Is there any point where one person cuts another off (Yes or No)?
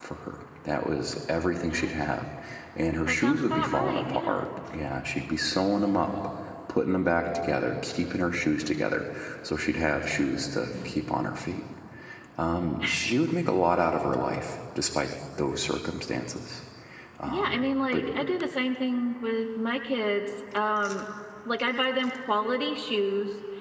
Yes